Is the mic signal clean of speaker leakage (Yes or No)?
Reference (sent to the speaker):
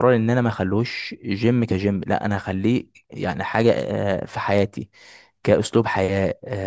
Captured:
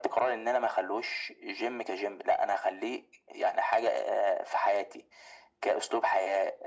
No